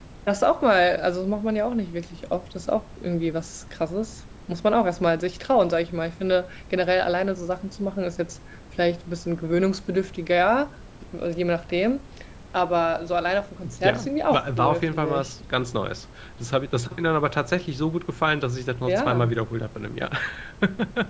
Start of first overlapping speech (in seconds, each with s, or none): 13.8 s